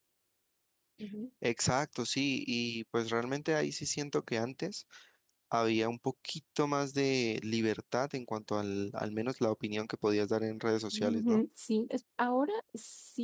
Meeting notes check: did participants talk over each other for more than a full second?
No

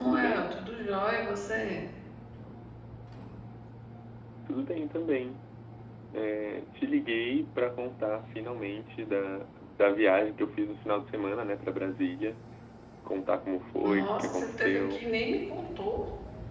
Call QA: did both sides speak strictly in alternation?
No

